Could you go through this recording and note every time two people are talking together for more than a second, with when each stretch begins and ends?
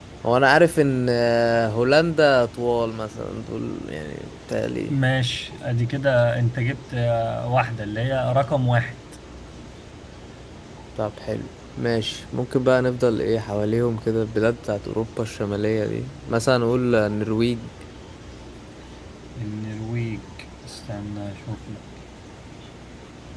none

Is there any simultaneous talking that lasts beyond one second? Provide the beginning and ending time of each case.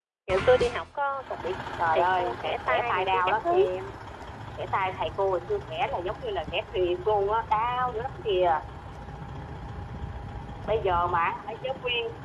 1.9-3.6

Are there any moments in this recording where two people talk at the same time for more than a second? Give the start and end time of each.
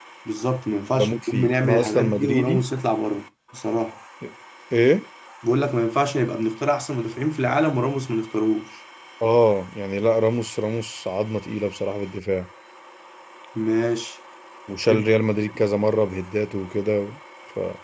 0.9-2.6

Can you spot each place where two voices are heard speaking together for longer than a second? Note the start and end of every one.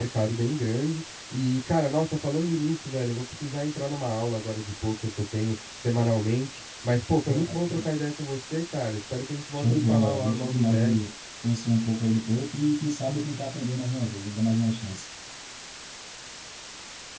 9.6-11.1

